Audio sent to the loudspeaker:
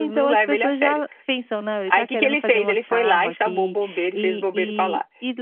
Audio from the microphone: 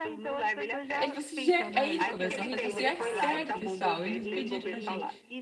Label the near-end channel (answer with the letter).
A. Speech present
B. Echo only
A